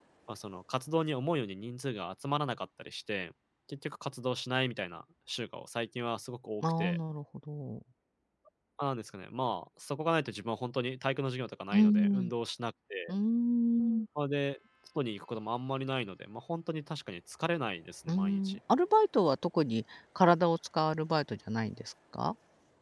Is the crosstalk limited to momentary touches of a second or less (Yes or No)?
Yes